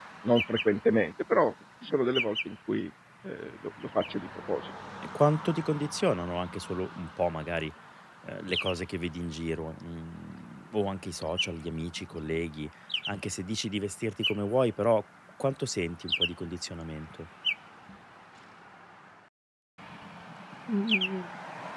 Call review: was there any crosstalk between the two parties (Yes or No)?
No